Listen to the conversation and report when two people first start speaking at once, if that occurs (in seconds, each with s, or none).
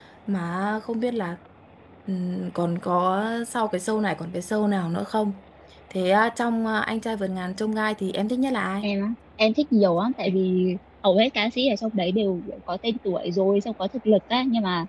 none